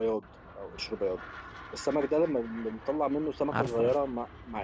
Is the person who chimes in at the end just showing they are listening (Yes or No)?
Yes